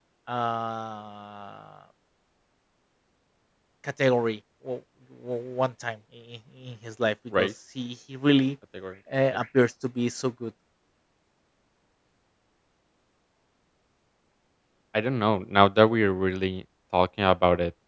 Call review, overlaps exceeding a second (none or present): none